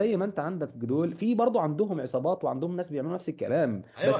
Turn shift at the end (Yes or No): Yes